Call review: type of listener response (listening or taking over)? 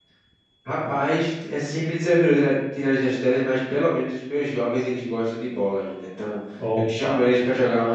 listening